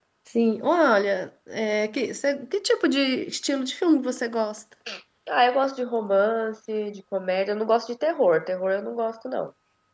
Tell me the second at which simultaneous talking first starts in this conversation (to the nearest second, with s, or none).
none